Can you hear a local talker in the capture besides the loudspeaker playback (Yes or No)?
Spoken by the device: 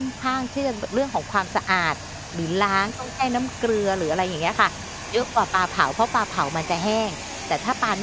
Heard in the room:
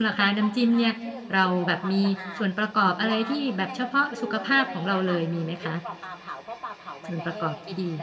Yes